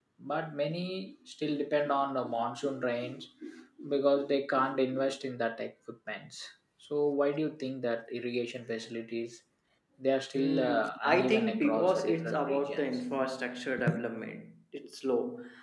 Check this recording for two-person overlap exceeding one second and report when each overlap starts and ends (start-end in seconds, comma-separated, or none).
10.3-12.8